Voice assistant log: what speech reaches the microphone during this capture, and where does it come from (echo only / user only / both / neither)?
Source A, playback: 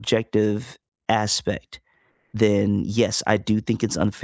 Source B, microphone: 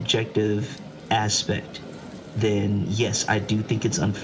echo only